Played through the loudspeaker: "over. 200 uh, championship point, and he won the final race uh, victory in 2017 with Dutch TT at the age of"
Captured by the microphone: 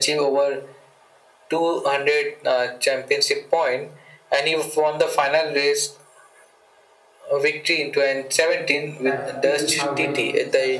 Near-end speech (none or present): present